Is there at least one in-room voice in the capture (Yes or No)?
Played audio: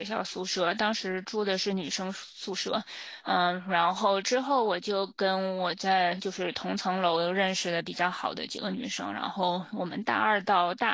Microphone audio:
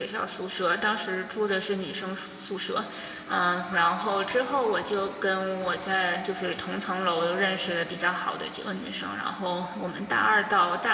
No